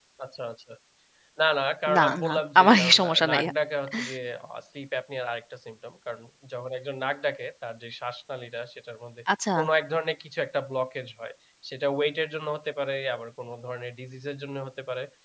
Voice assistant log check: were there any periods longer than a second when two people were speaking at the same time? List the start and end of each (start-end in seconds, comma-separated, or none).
1.9-3.4